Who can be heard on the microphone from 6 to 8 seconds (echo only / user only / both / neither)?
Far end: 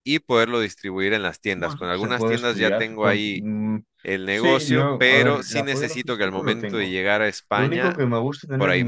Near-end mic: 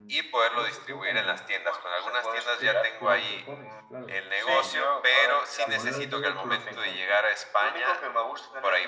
both